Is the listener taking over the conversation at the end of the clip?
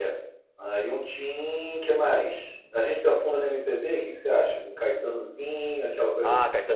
Yes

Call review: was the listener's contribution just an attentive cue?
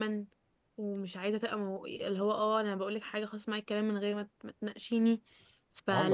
Yes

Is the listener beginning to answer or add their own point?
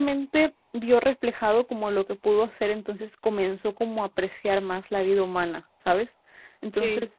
No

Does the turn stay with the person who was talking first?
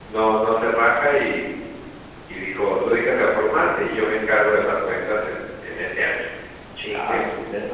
No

